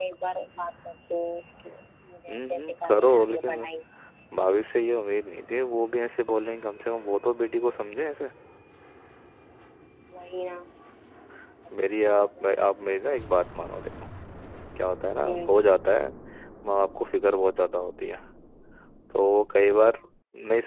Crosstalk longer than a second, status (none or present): present